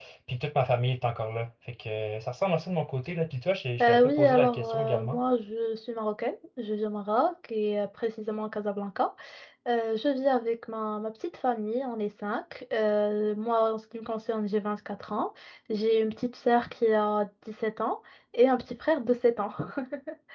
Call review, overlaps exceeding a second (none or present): present